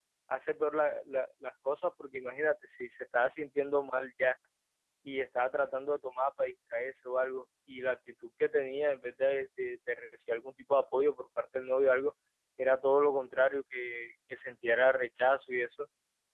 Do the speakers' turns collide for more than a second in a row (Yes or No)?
No